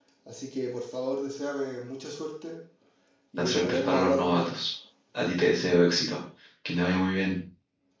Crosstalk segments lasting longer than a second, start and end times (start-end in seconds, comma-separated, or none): 3.4-4.6